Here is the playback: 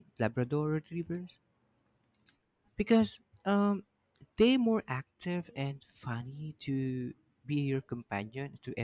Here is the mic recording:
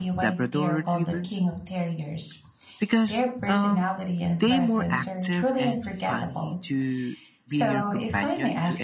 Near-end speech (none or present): present